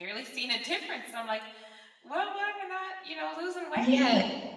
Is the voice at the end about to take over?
Yes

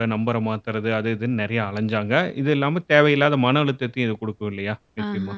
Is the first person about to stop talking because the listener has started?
Yes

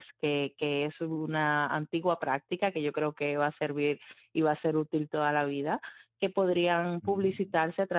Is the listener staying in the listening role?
Yes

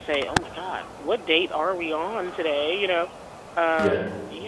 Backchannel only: Yes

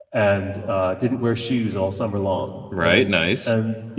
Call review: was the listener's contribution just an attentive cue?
Yes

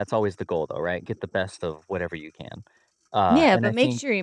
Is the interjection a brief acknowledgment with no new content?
No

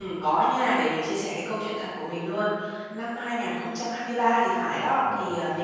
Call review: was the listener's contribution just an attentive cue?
Yes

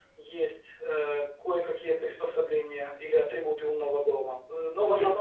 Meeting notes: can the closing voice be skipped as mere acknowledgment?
Yes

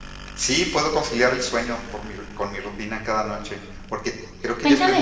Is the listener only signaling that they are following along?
No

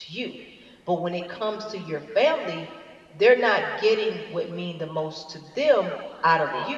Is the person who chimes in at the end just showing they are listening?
Yes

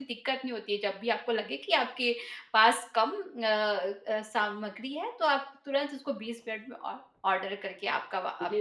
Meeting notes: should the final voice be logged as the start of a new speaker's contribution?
Yes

